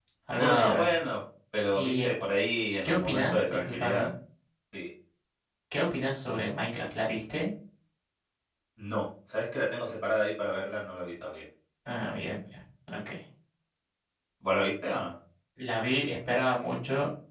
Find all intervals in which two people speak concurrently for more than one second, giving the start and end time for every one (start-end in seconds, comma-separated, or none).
2.8-4.1